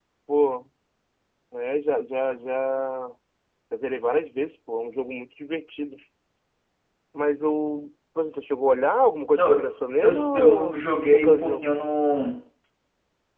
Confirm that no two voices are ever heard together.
No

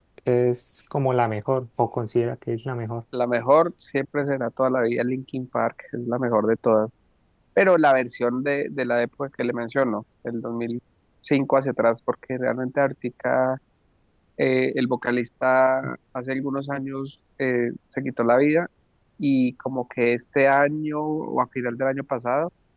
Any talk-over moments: No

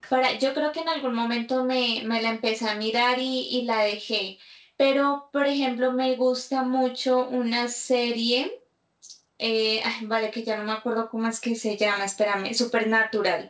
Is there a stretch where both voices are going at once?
No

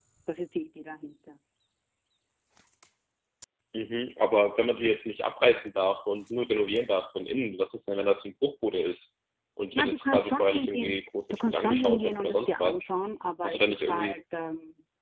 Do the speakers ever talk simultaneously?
Yes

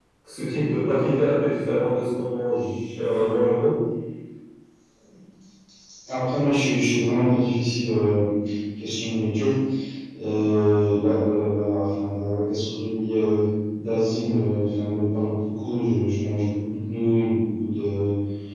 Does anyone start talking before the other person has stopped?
No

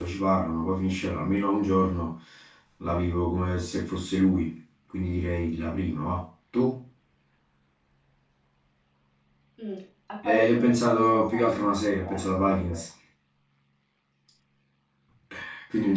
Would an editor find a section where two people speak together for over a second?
Yes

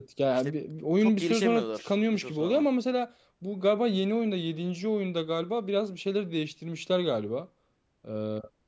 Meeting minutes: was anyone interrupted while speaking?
Yes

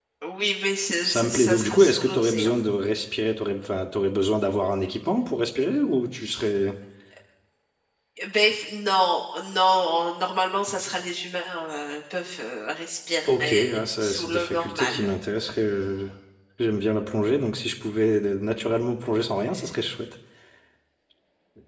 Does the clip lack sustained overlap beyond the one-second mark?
No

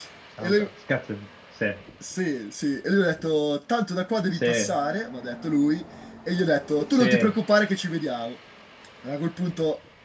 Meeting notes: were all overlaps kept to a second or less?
Yes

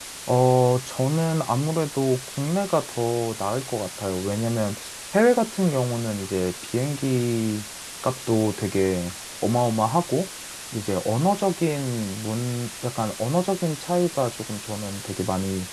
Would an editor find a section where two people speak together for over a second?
No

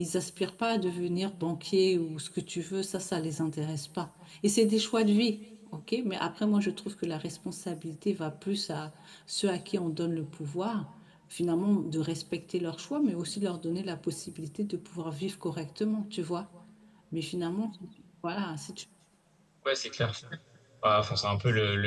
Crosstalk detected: No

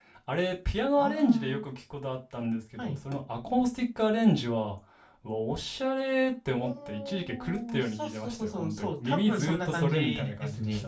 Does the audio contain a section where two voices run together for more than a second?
Yes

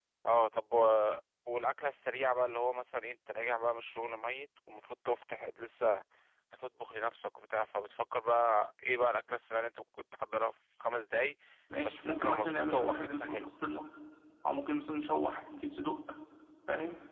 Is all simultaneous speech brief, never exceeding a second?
No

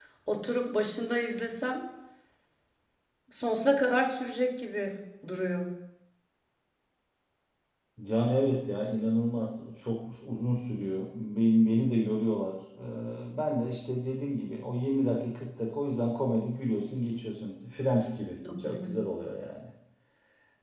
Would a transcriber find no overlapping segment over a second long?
Yes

